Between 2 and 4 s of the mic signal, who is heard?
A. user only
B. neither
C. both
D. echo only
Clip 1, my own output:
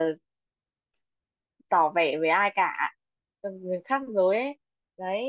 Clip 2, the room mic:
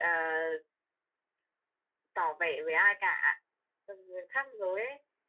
D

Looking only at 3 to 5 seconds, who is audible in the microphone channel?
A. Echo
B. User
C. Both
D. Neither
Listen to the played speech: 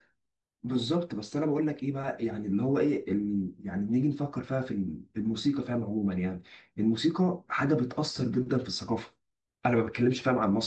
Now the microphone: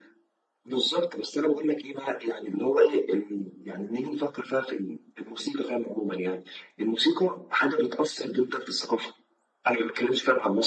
A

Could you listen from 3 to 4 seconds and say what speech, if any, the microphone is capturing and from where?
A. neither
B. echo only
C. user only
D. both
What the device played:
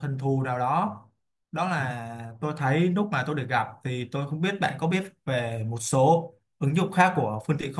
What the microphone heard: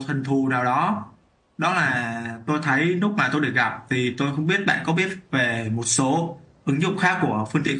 B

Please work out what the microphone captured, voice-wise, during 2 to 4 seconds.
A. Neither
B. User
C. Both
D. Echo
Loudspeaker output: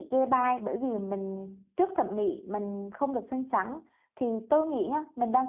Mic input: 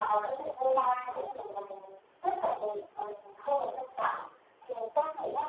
D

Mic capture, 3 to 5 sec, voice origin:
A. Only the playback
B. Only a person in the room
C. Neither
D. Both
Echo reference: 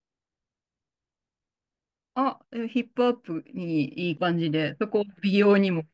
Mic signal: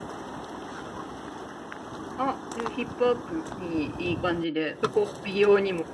A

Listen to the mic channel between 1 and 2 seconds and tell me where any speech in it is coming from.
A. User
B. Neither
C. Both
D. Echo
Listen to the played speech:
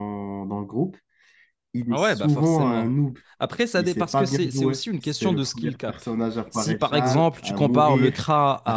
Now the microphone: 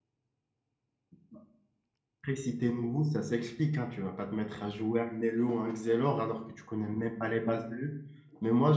B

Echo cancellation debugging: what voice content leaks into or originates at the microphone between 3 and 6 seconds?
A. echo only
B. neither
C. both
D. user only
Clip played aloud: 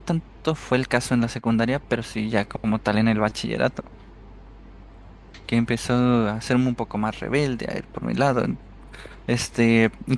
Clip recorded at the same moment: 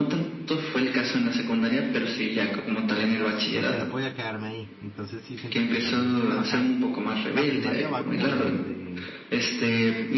C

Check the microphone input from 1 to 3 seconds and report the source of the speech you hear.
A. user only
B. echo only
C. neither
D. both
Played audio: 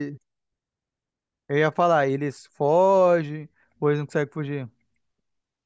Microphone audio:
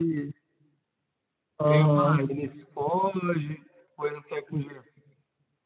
D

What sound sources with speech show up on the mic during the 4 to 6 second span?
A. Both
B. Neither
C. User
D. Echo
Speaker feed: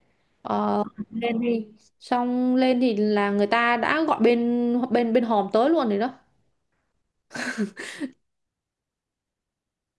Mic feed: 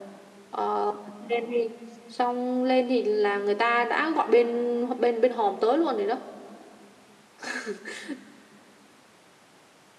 D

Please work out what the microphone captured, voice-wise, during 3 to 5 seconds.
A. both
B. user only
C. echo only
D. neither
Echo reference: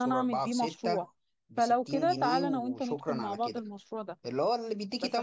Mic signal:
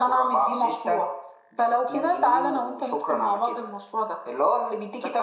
C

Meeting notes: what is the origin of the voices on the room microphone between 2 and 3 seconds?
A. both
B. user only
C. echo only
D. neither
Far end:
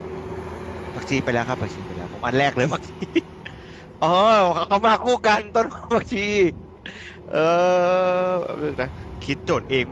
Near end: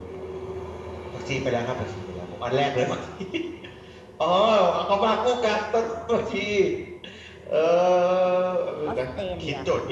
C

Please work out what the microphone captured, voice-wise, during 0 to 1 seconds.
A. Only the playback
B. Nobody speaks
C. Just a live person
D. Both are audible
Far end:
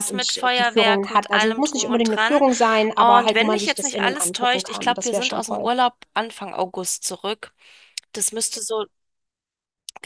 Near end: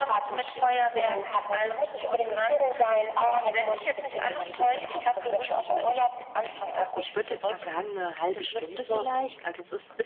A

